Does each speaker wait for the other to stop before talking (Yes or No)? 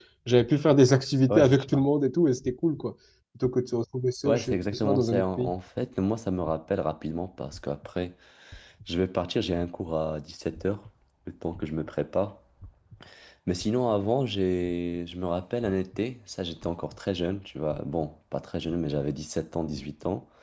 No